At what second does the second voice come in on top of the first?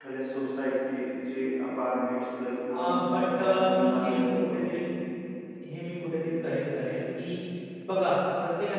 3 s

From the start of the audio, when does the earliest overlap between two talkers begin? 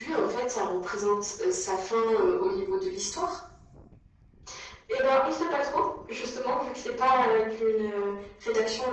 none

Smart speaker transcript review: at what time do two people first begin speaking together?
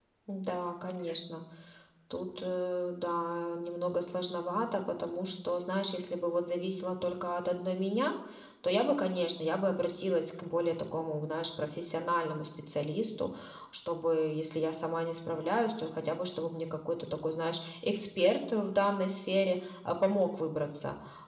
none

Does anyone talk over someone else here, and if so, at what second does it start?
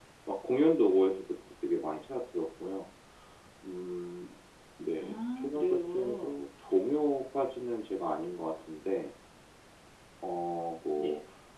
5 s

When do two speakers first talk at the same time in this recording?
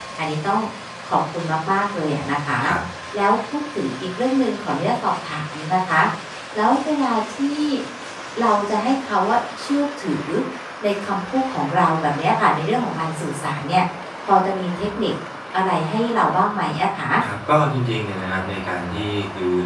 none

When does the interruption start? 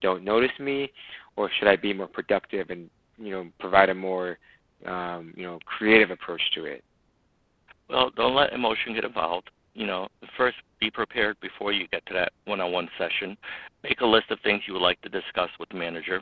none

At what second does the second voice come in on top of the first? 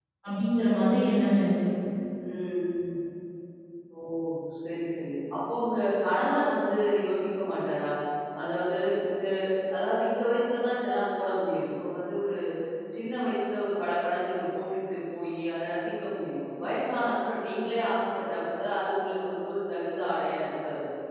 none

